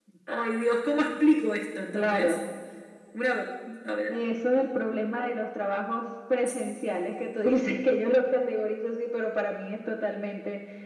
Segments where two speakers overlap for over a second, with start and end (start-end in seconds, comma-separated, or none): none